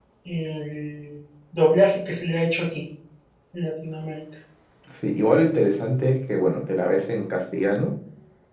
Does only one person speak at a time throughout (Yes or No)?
Yes